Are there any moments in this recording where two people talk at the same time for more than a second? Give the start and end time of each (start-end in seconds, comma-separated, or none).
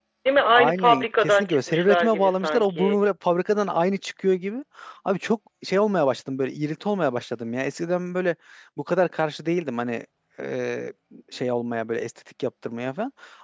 0.5-3.0